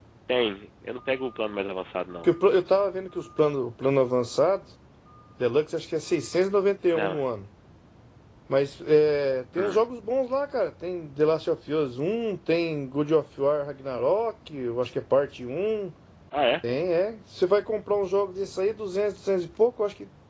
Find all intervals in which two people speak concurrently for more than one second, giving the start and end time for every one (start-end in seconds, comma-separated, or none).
none